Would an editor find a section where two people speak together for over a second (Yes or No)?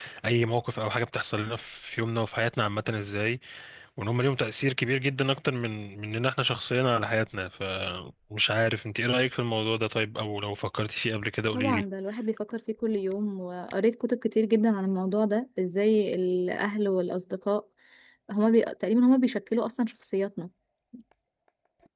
No